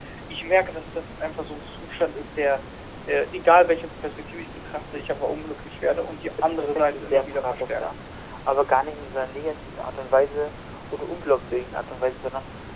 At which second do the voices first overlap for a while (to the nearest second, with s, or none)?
6 s